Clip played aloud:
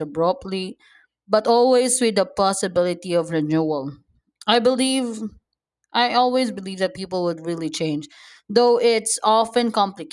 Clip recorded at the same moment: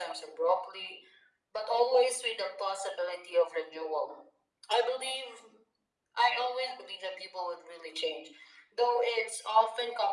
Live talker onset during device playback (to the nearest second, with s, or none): none